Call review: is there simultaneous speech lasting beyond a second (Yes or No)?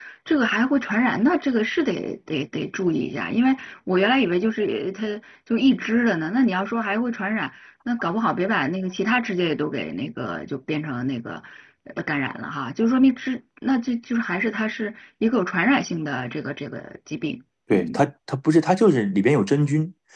No